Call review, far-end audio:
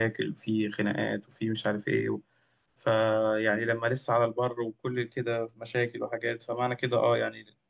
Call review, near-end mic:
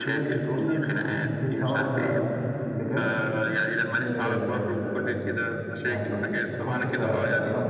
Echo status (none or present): present